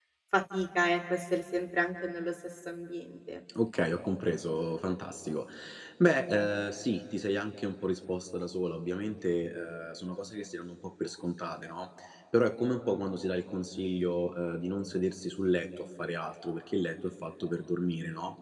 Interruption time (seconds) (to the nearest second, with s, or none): none